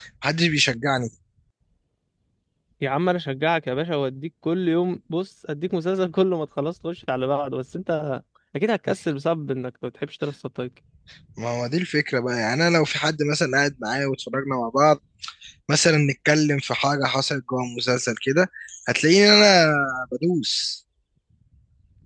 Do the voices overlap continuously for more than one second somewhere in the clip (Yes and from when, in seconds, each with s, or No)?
No